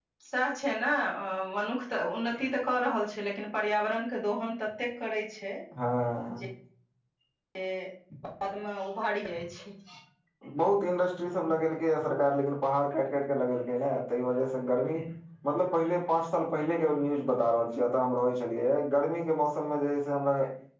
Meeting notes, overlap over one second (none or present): none